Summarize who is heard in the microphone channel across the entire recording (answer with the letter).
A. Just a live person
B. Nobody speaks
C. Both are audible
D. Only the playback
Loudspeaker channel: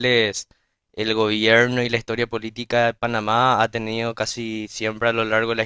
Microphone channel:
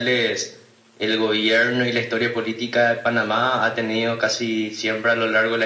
D